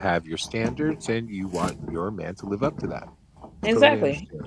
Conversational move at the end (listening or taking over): taking over